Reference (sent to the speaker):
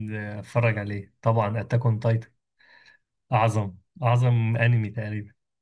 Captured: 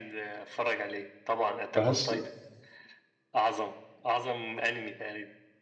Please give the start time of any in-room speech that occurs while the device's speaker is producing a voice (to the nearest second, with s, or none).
2 s